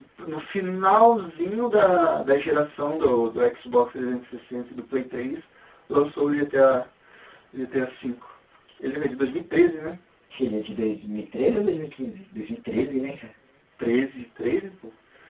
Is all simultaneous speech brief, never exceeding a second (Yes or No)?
Yes